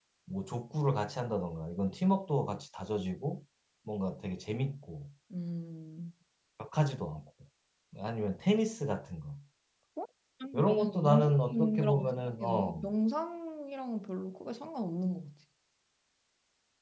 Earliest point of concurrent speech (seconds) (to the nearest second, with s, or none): 11 s